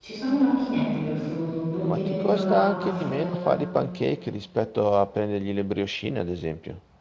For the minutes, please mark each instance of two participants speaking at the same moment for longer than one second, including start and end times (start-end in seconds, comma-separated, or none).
1.9-3.5